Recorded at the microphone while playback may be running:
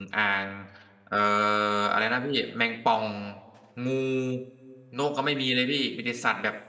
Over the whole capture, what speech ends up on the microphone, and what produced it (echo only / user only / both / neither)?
user only